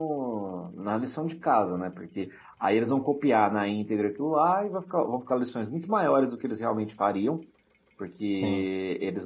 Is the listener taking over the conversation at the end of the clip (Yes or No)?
No